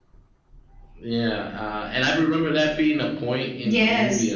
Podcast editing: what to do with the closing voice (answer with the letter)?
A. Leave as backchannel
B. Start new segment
B